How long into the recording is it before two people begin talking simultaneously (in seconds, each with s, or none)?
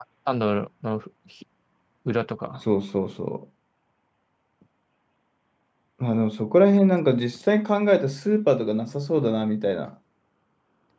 none